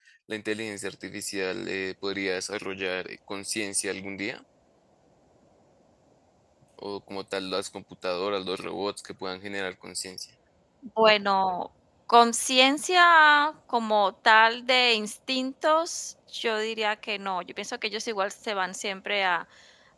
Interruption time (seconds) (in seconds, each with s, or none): none